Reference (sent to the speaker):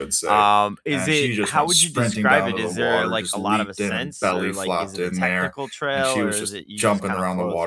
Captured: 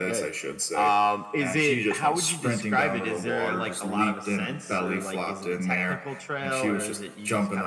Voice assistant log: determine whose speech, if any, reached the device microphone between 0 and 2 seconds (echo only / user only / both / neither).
echo only